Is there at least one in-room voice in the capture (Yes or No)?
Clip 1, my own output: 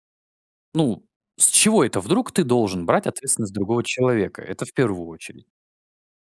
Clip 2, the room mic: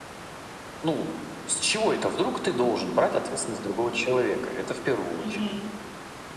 Yes